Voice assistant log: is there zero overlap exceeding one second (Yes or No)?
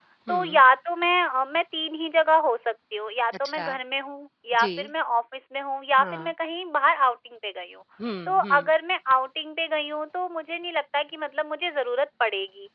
Yes